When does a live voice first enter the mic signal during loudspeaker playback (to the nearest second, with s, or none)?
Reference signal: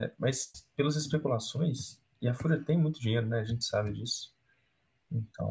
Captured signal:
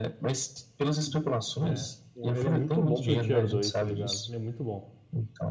2 s